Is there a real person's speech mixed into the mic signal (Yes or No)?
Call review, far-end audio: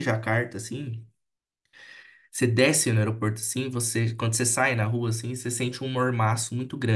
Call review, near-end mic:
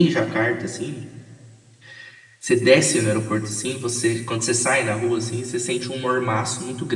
No